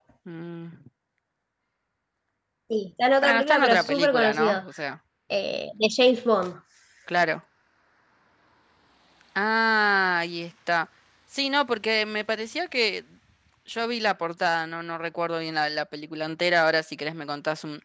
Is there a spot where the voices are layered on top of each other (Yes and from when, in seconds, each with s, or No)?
Yes, from 3.2 s